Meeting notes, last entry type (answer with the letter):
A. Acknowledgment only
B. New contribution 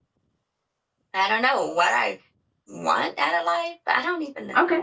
B